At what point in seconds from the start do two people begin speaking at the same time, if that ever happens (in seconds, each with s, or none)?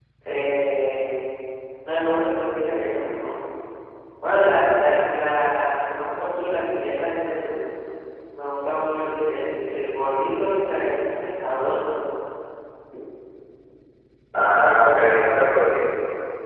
14.3 s